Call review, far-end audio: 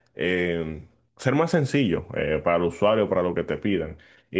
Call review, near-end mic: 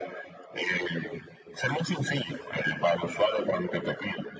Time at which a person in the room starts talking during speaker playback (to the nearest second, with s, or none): none